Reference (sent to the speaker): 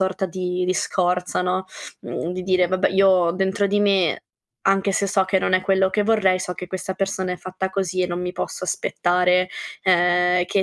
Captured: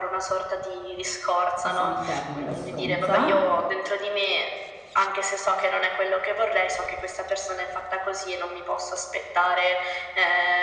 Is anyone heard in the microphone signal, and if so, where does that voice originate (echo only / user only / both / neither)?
both